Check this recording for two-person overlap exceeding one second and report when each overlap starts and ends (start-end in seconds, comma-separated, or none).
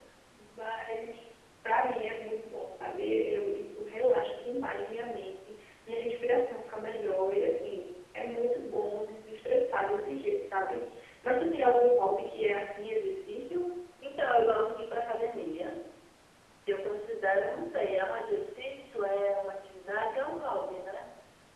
none